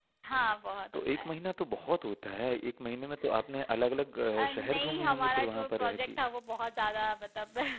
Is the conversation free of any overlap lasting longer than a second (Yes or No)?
No